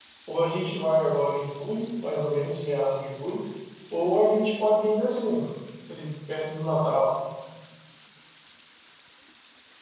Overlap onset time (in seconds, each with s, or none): none